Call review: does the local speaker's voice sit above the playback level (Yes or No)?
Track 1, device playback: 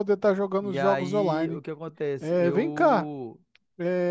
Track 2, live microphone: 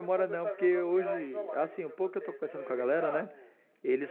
Yes